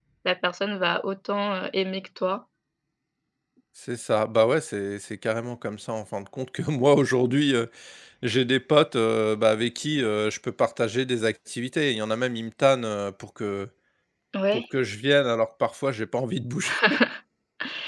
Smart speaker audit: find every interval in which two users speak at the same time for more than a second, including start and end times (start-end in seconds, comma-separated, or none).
none